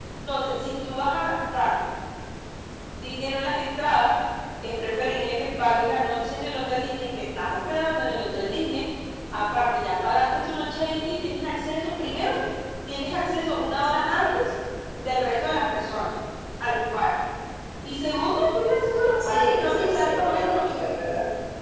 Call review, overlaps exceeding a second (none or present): present